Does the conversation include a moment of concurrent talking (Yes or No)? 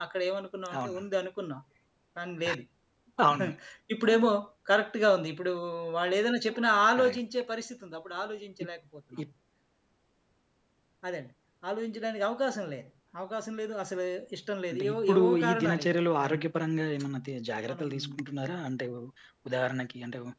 Yes